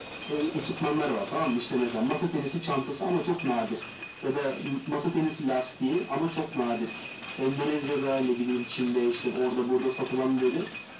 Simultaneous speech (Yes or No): No